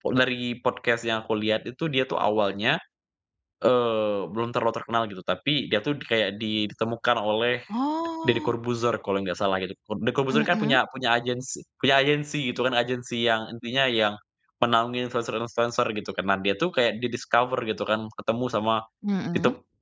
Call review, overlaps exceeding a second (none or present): none